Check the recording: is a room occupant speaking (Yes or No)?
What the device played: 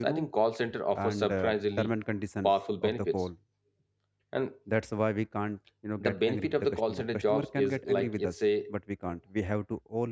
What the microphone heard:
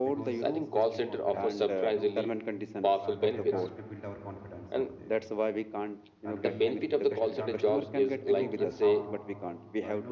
Yes